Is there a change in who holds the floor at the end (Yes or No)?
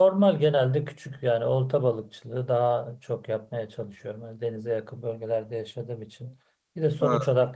No